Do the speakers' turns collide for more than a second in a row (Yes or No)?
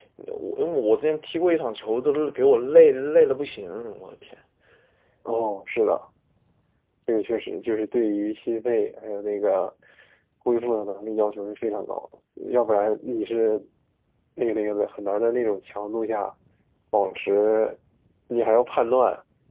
No